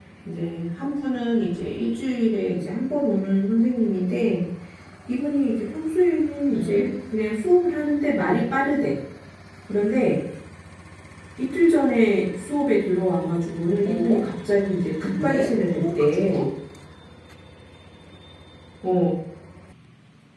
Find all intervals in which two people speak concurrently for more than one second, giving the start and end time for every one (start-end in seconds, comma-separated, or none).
15.2-16.5